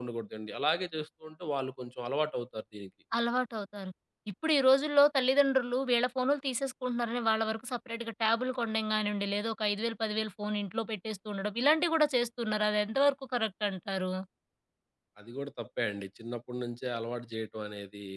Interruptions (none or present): none